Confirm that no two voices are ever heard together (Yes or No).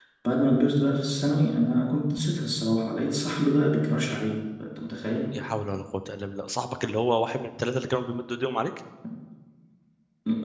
Yes